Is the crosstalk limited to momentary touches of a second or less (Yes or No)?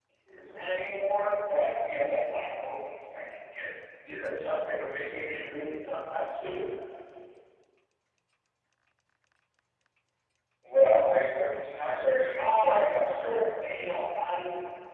No